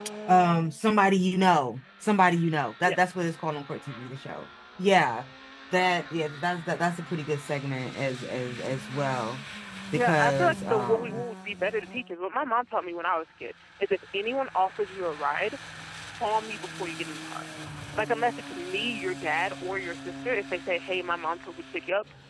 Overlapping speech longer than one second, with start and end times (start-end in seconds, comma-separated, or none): 9.9-11.2